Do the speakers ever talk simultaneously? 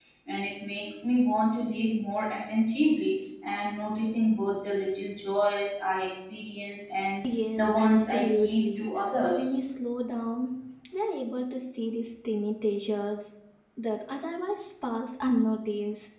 Yes, from 7.5 s

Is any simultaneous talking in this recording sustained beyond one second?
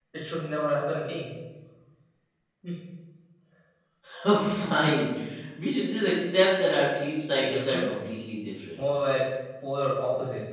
No

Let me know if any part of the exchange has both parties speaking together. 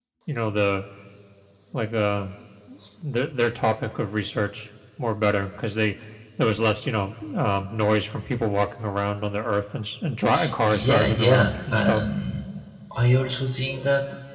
Yes, from 10.6 s

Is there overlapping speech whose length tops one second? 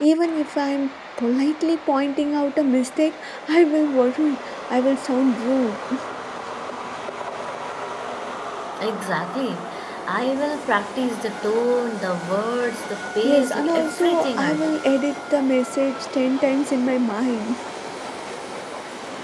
Yes, from 13.2 s

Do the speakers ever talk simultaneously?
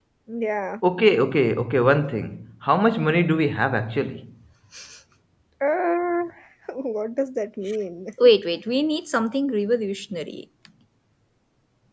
No

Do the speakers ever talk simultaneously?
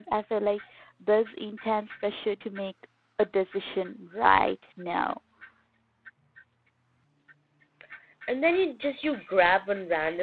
No

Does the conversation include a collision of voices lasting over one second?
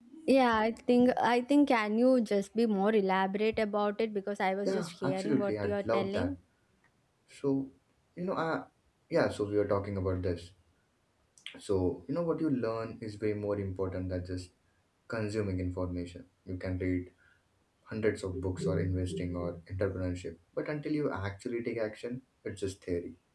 Yes, from 4.7 s

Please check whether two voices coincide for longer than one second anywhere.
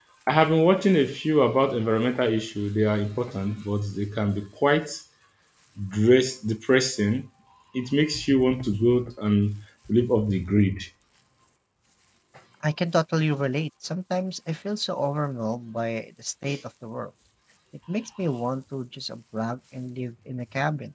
No

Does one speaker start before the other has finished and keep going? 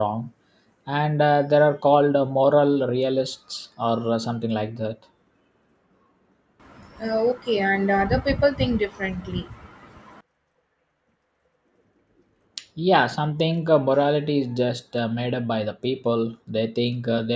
No

